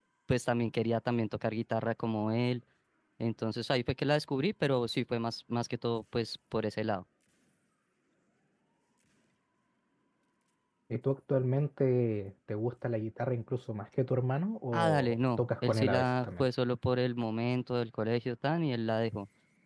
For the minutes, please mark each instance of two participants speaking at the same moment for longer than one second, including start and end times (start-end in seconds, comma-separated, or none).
14.7-16.5